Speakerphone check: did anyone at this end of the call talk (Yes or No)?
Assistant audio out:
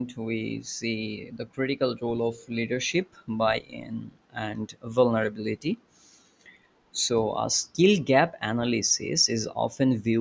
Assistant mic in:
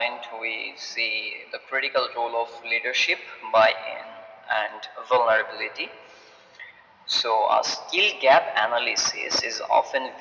No